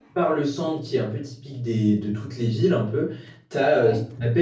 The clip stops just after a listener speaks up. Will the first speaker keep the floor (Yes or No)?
Yes